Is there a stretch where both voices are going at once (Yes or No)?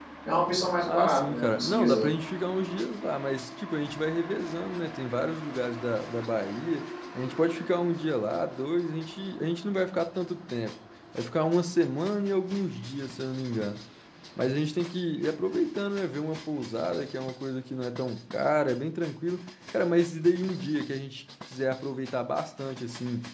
Yes